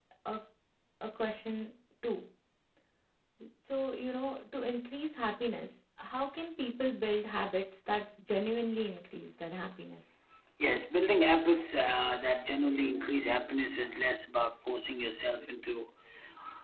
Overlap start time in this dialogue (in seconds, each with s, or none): none